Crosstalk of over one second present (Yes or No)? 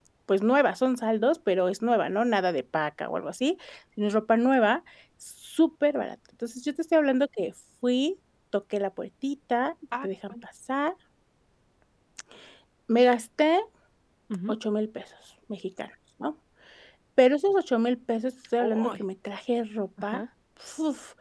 No